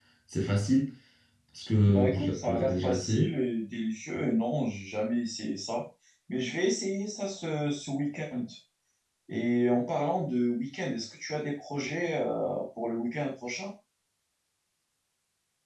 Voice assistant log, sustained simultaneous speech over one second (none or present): present